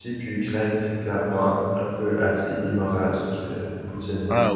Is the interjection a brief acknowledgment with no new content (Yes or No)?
No